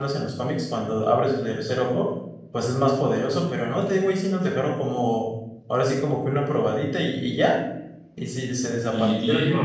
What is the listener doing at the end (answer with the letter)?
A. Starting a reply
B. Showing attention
A